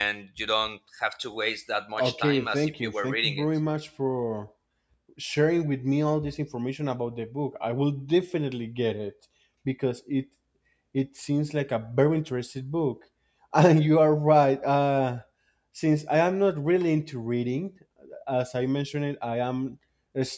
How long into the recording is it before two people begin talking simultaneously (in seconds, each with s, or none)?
1.9 s